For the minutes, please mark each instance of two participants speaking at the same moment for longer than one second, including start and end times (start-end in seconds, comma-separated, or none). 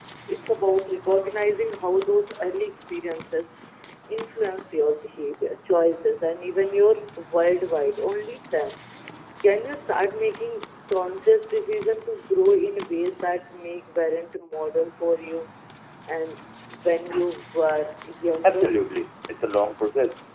none